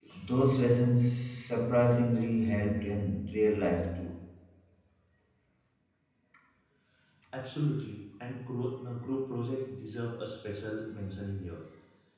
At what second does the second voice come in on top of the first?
none

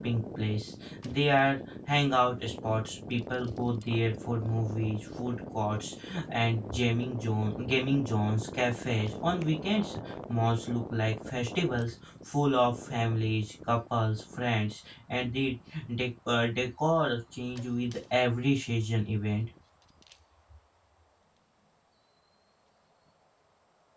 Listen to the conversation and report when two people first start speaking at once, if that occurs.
none

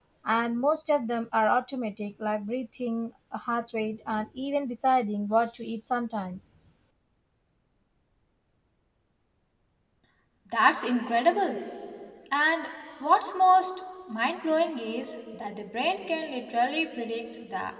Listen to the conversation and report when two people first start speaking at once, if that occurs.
none

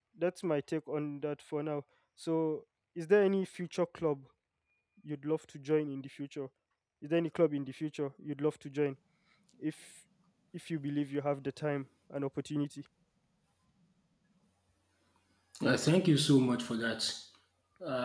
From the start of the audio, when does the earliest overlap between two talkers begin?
none

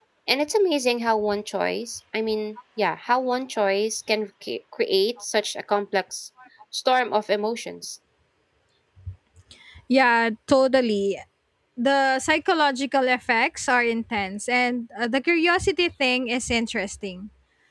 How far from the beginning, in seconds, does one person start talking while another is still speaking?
none

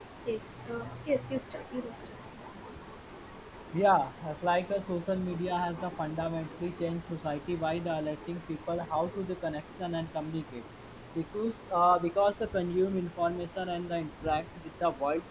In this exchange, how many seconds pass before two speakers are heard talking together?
none

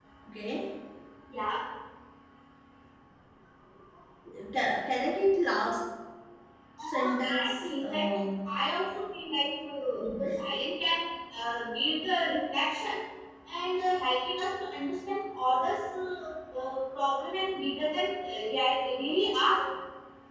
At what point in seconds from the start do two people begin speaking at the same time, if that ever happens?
6.8 s

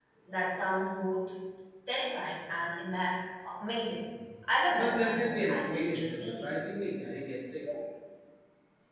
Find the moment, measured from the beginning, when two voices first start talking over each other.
4.7 s

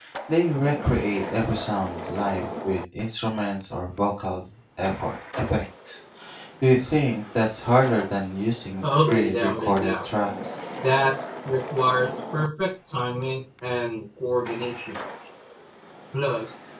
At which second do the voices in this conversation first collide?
8.8 s

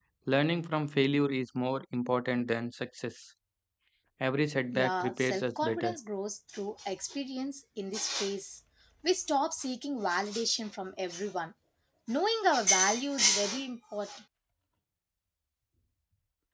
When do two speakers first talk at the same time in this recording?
4.7 s

